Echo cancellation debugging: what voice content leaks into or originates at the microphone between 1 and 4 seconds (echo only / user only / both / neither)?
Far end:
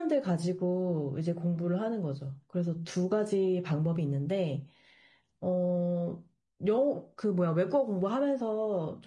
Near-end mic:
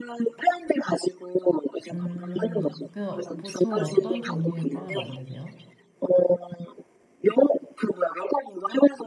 both